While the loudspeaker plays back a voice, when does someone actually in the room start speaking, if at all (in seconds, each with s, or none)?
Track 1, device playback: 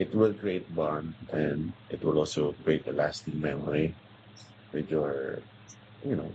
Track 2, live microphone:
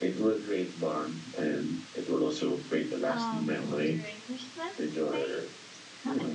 3.0 s